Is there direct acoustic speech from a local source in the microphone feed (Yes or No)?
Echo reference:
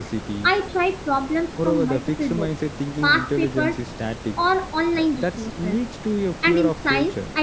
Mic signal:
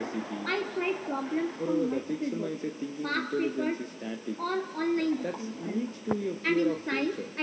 No